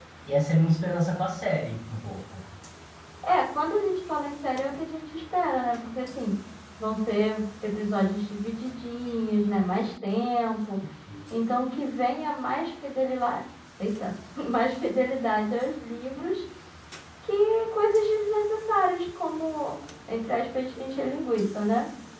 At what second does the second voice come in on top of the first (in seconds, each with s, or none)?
none